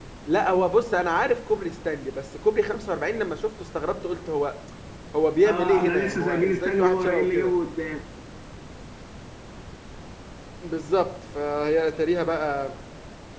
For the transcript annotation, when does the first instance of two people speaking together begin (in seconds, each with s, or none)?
5.4 s